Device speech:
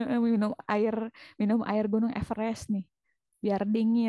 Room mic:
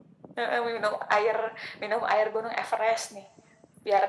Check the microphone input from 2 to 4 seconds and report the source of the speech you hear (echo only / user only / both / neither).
echo only